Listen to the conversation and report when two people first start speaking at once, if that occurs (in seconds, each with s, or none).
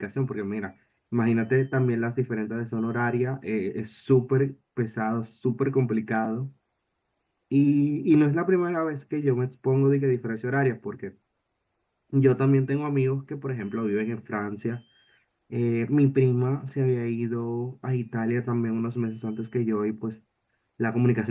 none